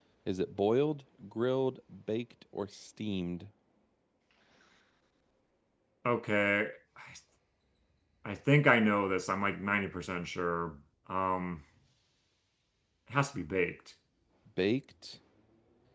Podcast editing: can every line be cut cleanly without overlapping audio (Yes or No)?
Yes